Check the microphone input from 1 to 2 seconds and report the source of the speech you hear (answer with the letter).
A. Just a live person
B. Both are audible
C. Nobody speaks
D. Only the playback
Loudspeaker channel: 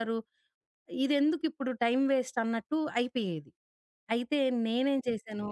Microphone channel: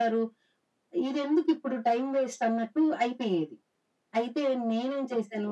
D